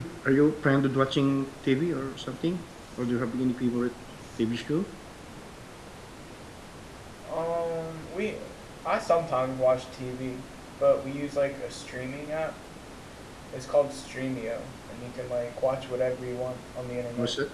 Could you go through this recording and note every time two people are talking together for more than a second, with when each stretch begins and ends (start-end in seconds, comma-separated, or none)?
none